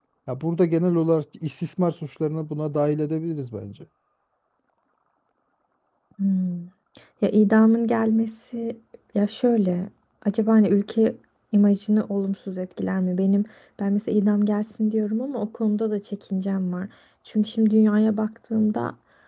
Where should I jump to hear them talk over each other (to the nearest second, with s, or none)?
none